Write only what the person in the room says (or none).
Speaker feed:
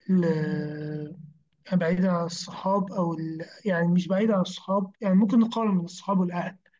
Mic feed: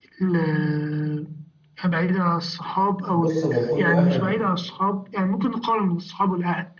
بص هو كل واحد